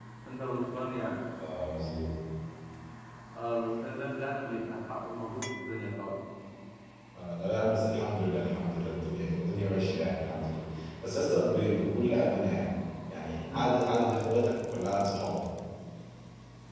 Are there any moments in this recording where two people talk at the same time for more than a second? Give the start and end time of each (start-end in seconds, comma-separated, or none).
none